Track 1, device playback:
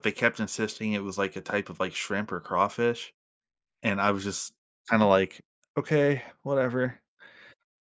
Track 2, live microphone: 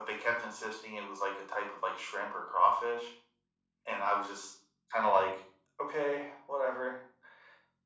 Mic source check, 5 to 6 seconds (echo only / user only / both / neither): echo only